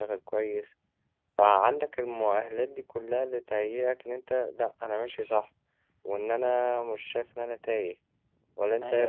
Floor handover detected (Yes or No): Yes